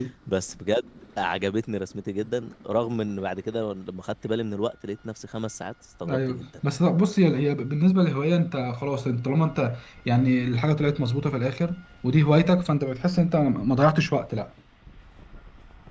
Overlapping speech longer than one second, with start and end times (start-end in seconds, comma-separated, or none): none